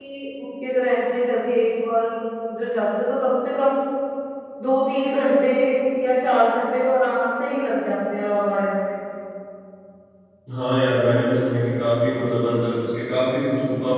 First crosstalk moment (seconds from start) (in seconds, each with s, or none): none